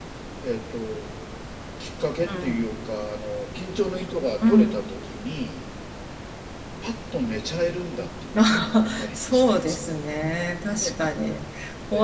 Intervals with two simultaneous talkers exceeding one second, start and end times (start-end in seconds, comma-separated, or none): 8.4-9.8